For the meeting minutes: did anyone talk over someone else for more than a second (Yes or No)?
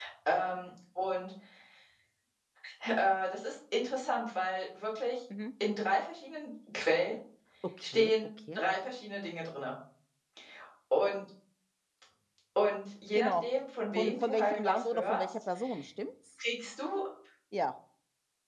Yes